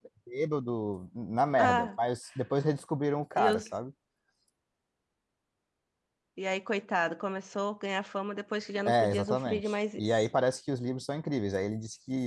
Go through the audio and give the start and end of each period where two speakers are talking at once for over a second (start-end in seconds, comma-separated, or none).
8.9-10.3